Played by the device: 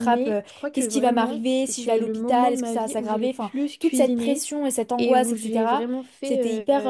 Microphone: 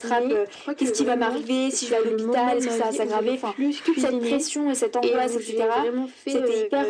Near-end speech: none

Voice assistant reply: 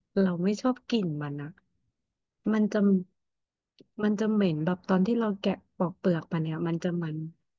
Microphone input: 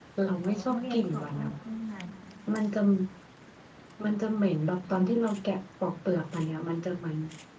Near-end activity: present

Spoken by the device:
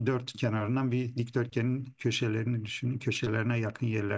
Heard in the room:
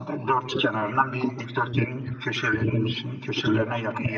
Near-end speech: none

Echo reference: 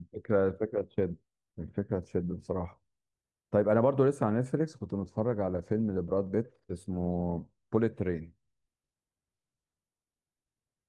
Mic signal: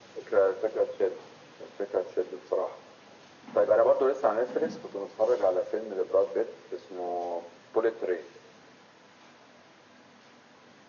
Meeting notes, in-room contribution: none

